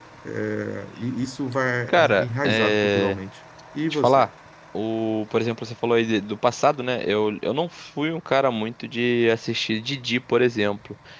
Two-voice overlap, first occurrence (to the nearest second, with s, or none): 2 s